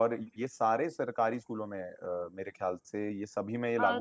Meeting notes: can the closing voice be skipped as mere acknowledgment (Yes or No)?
No